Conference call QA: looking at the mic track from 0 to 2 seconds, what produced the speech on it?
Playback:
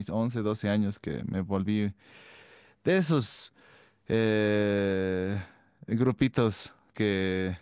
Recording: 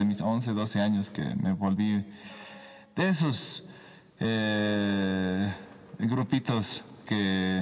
echo only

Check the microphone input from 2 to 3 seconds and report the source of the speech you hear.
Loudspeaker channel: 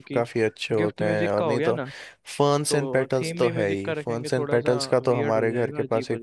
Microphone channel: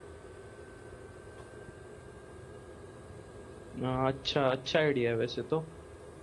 neither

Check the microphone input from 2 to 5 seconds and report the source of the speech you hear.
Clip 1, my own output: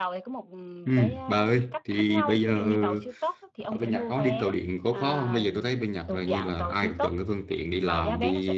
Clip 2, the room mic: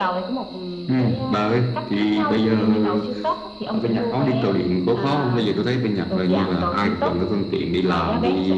echo only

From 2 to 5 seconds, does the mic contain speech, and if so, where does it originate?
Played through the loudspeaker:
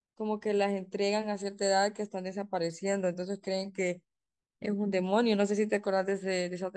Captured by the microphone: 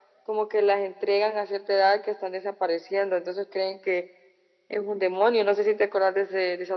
echo only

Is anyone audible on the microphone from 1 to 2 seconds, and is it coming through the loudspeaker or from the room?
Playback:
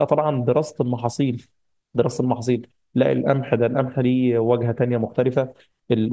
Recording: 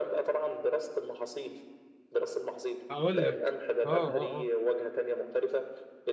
echo only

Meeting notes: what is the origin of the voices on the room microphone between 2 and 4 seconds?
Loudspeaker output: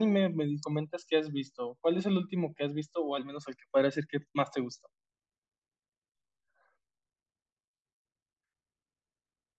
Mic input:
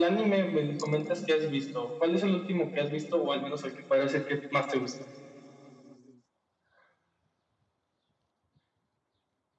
echo only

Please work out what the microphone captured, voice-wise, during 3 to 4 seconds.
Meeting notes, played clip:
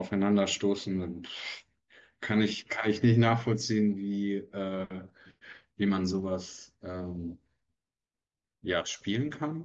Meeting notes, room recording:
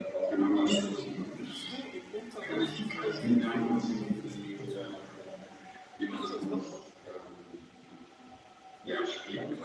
both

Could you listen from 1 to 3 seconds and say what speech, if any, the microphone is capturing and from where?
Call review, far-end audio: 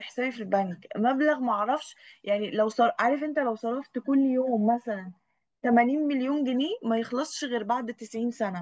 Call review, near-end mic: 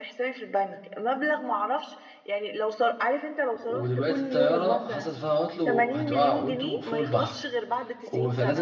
echo only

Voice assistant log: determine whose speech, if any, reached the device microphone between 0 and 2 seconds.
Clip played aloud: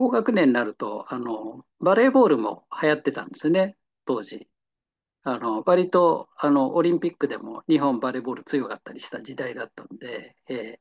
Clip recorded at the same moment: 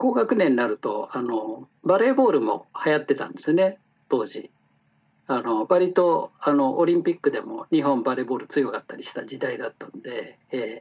echo only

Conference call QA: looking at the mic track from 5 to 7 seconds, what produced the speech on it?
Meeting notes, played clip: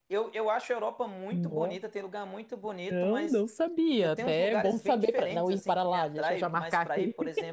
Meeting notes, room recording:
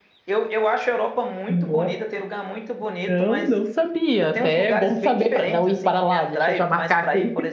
echo only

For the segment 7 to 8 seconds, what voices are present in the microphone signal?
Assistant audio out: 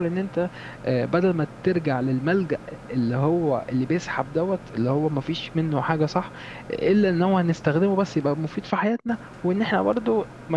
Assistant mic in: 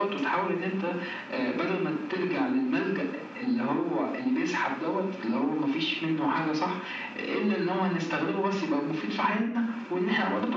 echo only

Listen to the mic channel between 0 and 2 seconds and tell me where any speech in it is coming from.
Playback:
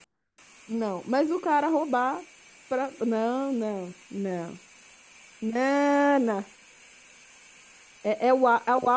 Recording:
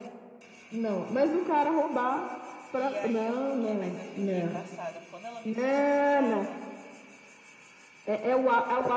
echo only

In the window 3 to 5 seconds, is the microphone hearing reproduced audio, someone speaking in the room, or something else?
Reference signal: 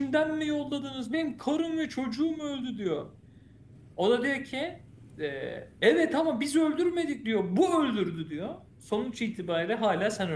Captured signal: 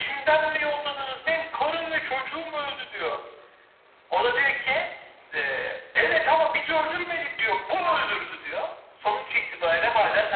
echo only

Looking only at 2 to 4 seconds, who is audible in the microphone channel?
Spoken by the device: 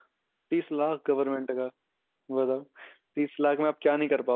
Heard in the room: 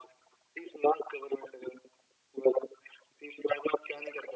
echo only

